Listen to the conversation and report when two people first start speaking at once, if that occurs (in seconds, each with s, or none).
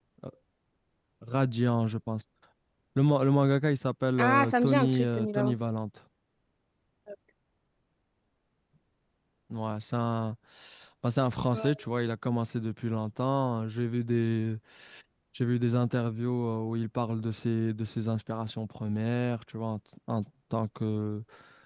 4.2 s